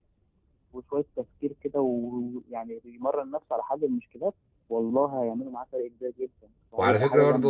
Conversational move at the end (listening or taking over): taking over